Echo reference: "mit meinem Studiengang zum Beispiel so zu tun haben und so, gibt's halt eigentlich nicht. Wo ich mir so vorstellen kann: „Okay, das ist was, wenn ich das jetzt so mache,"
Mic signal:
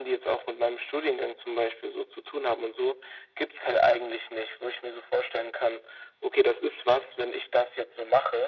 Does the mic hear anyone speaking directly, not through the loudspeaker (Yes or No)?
No